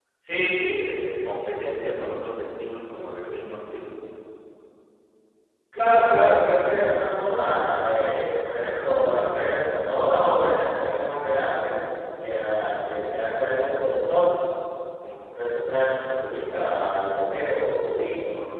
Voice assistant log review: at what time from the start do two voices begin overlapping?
none

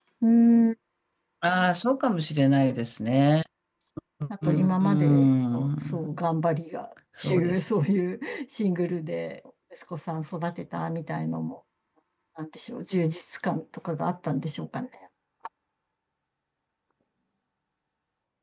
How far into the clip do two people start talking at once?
4.4 s

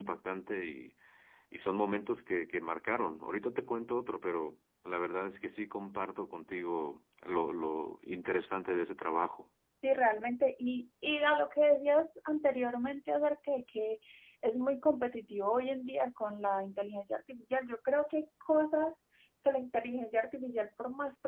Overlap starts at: none

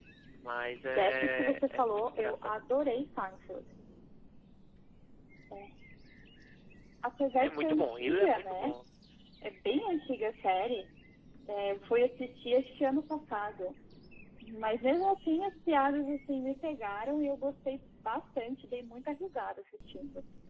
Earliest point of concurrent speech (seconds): 0.9 s

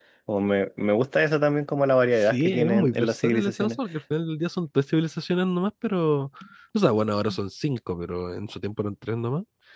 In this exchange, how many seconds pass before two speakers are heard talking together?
2.2 s

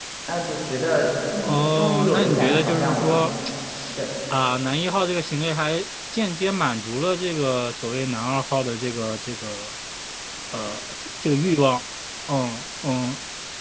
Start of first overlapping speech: 1.4 s

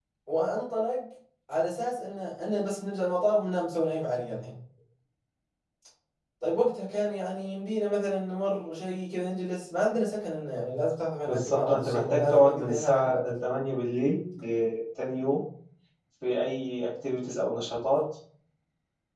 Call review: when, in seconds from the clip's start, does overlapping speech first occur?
11.2 s

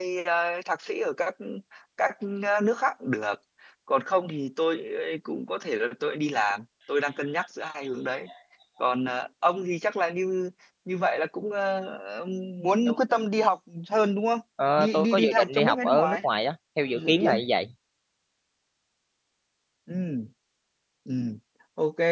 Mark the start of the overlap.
14.8 s

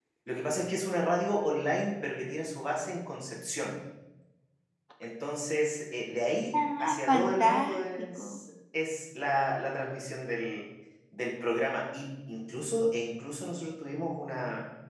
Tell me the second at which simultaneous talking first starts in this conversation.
6.5 s

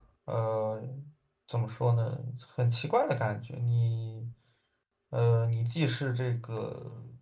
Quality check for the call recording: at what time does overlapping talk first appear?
none

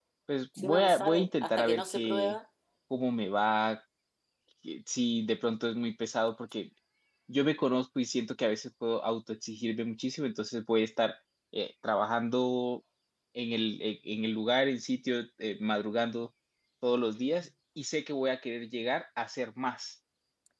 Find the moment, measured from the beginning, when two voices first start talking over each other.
0.6 s

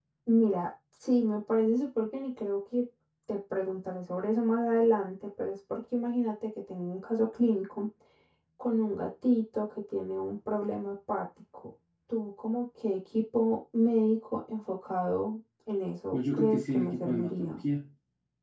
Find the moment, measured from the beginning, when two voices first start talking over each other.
16.1 s

